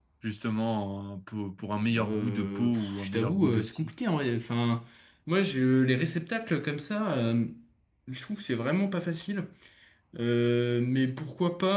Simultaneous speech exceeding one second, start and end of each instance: 2.0-3.9

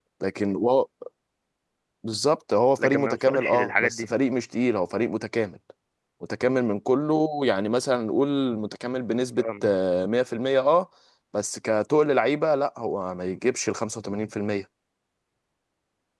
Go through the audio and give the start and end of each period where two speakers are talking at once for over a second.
2.8-4.1

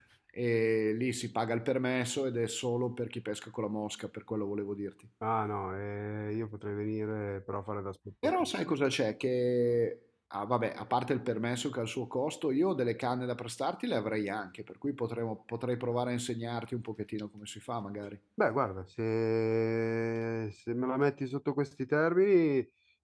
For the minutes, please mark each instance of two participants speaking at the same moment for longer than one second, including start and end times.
none

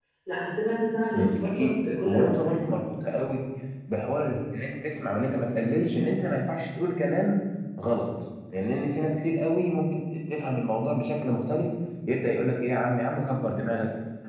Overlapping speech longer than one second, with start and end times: 1.1-2.6

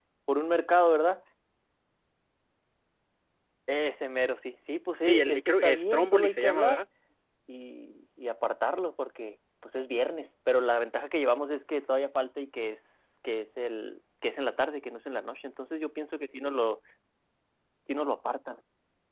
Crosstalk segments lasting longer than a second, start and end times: 5.0-6.8

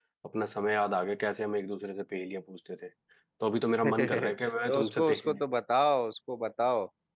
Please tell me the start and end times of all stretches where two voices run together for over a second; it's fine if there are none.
3.9-5.4

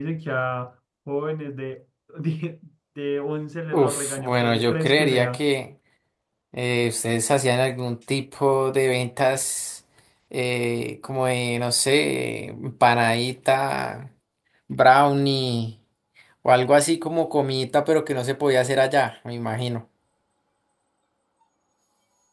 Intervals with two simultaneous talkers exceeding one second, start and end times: 3.7-5.4

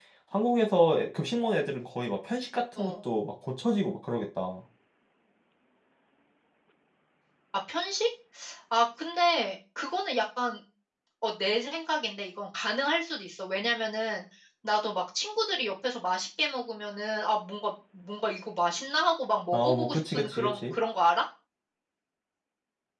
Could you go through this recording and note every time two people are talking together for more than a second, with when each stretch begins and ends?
19.5-20.7

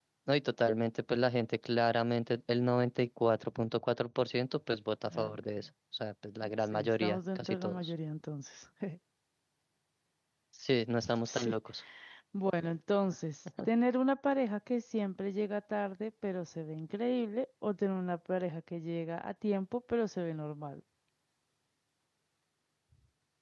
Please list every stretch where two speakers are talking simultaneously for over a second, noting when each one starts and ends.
6.6-7.9

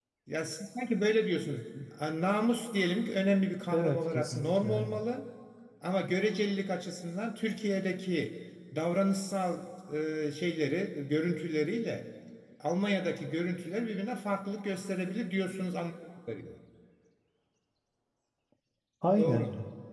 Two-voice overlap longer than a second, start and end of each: 3.7-5.0

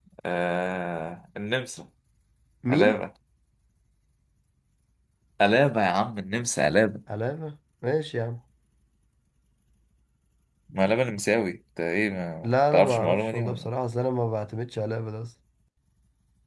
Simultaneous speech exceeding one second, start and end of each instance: 12.4-13.7

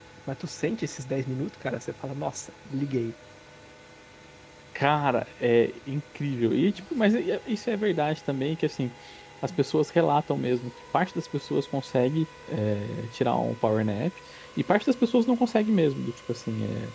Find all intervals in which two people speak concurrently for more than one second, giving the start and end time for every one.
none

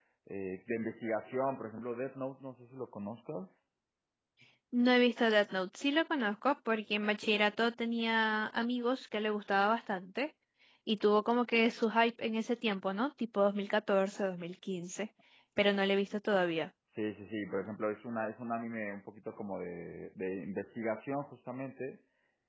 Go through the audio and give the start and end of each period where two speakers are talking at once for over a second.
none

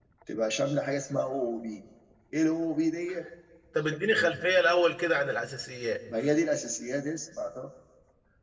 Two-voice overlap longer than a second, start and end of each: none

